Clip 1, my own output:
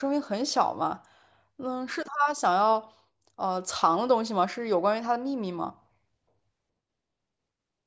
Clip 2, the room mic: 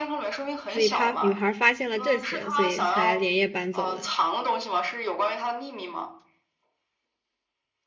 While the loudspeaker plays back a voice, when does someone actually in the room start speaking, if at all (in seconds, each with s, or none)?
0.7 s